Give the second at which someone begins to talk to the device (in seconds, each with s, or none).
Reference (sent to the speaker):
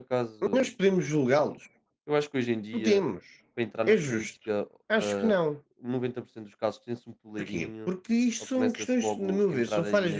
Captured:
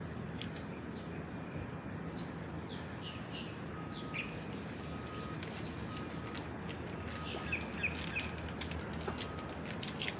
none